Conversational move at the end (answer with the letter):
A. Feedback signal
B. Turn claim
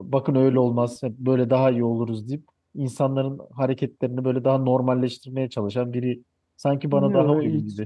B